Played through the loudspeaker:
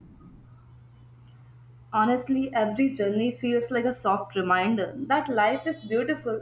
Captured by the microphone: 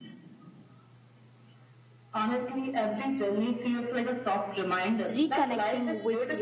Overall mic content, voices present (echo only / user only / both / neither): both